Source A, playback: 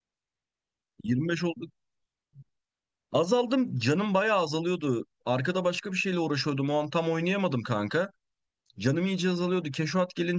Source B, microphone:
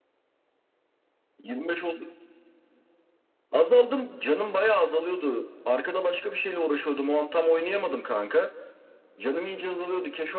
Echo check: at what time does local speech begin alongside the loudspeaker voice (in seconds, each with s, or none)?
none